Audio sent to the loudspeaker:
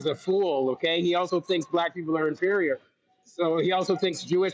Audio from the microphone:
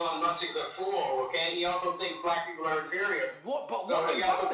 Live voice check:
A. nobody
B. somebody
B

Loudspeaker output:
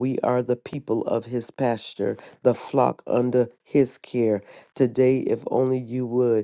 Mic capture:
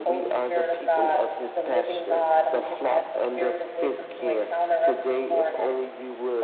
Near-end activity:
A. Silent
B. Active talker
B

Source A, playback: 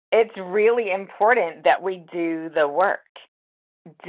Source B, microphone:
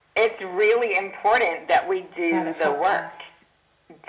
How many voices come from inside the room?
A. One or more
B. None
A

